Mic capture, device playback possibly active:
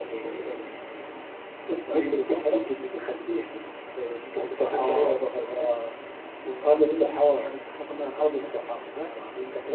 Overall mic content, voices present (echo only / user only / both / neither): echo only